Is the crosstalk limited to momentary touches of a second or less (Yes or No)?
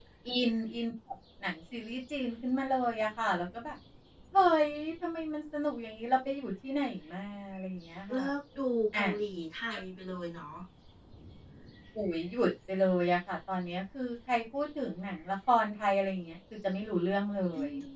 Yes